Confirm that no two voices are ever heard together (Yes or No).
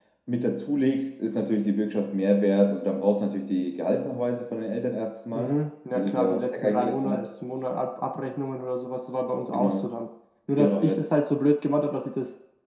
No